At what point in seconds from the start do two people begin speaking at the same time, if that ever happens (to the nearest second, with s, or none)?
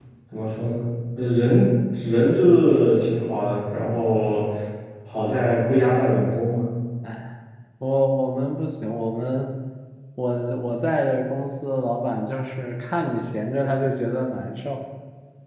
none